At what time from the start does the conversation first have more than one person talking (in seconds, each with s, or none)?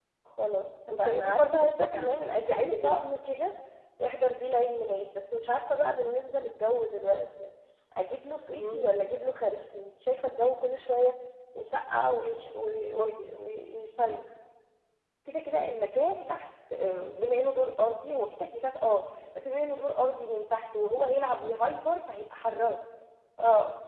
1.0 s